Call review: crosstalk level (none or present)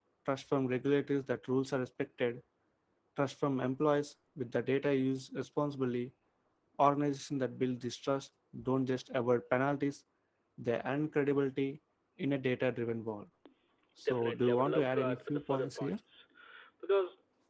present